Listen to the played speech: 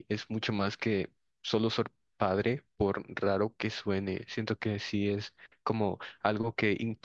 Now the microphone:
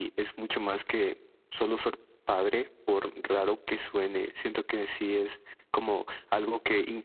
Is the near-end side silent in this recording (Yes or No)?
Yes